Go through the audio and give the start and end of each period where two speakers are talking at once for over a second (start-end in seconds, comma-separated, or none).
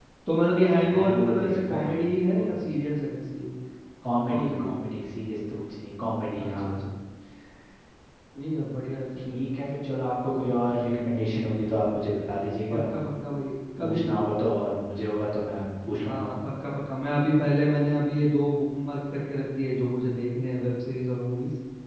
0.8-2.0